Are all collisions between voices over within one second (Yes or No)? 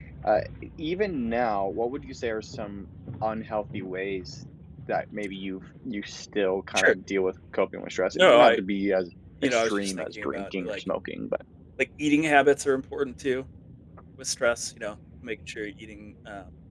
No